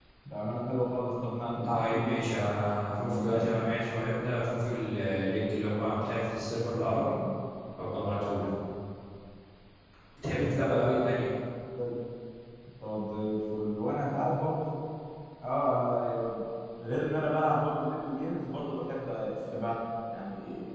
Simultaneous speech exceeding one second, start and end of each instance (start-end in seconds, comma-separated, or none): 1.6-3.6